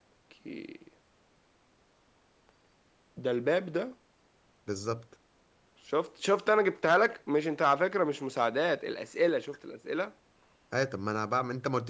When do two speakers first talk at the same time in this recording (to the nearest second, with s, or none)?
none